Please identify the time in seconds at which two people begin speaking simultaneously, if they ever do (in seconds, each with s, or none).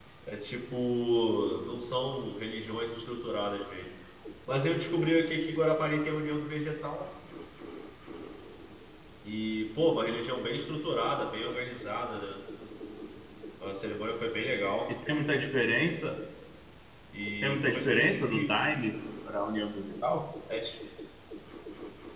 17.4 s